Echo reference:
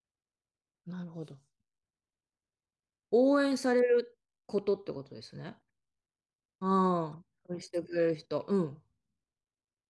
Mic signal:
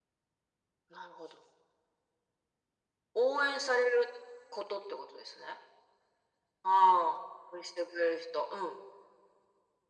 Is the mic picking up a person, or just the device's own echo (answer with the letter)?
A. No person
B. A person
A